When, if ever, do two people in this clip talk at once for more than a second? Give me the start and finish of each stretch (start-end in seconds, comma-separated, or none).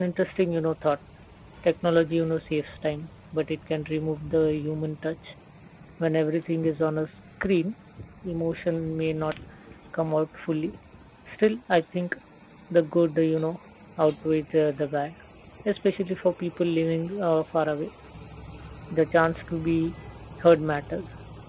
none